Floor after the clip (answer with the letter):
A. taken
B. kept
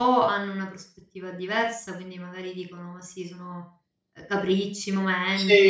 B